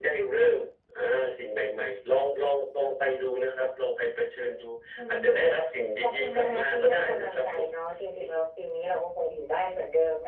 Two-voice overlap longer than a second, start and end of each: 6.0-7.7

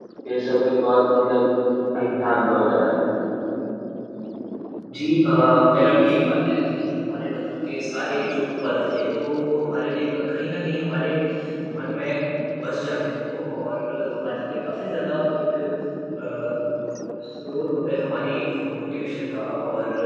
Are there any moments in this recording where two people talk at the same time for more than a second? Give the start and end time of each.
none

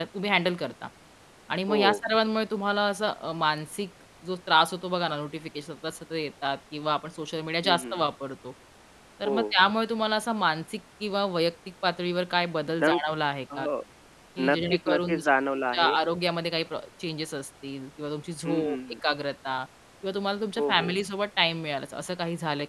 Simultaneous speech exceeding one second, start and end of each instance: 14.5-15.9

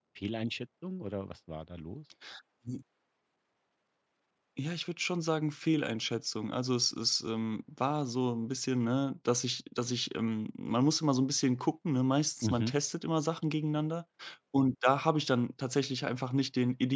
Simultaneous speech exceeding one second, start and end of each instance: none

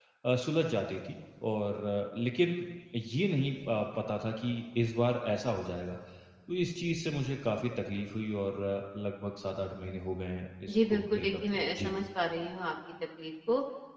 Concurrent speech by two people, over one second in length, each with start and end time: 10.7-11.9

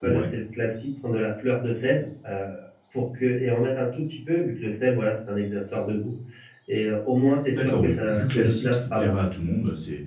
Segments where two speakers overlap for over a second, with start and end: 7.5-9.1

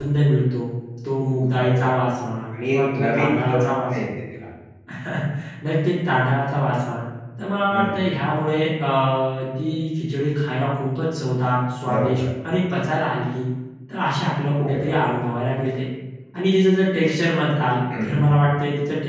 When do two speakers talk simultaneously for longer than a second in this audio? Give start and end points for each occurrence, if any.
2.5-4.0

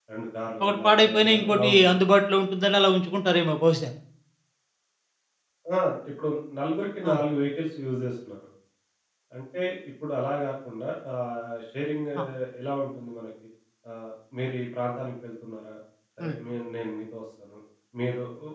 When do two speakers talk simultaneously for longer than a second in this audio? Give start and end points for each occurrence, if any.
0.6-2.0

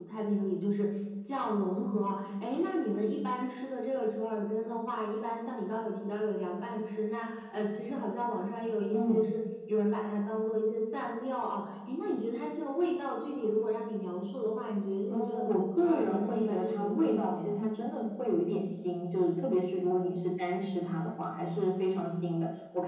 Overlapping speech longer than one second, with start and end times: 15.1-17.5

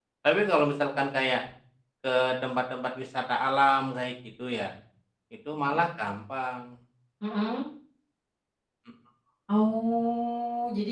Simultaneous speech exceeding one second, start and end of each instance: none

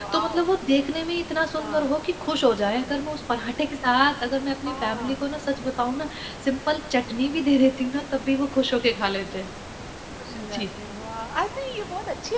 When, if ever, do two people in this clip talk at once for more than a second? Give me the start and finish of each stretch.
none

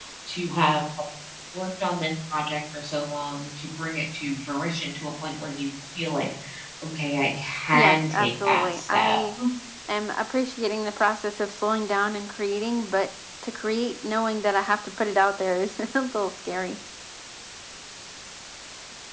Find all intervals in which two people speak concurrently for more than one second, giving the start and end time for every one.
7.7-9.2

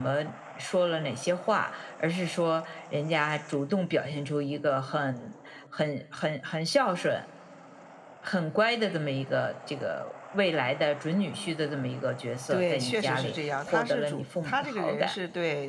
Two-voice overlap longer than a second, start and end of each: 12.5-15.2

